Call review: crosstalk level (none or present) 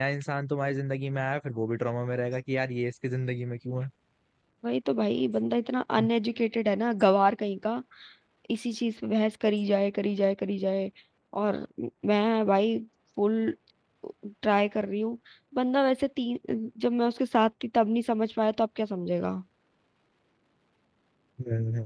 none